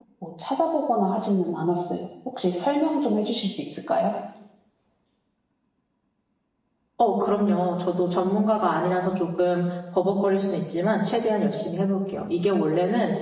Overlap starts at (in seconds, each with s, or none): none